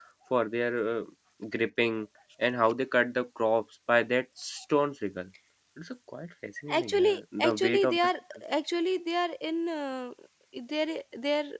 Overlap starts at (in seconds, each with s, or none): 6.7 s